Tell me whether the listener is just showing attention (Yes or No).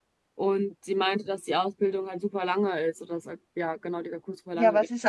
No